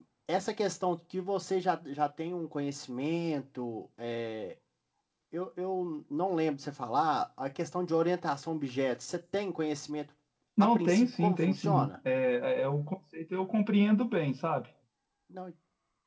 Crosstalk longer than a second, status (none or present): present